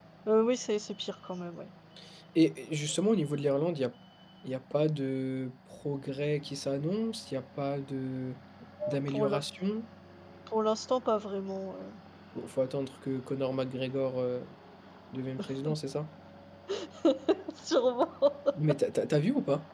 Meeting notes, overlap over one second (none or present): none